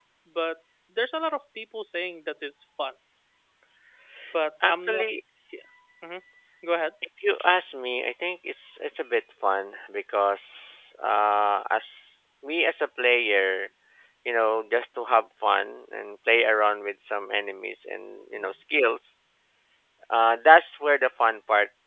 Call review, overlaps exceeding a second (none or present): none